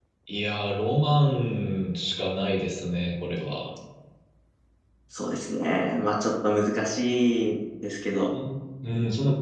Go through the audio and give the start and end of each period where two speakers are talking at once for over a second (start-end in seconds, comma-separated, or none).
none